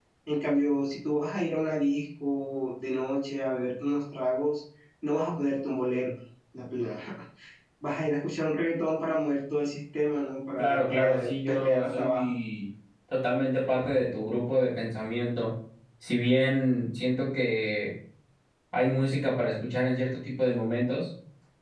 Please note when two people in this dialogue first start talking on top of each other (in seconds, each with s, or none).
10.6 s